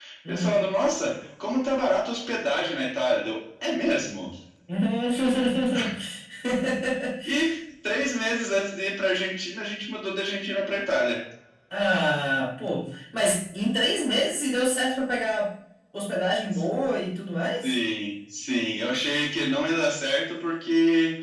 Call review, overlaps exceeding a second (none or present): none